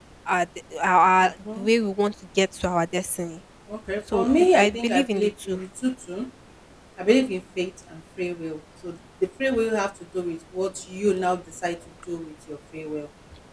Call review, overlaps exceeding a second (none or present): present